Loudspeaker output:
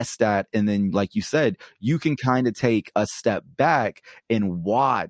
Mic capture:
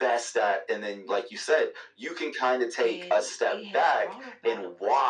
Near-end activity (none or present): present